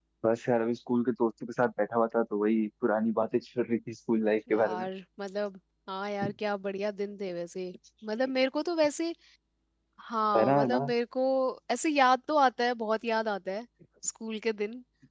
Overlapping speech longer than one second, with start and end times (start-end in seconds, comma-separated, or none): none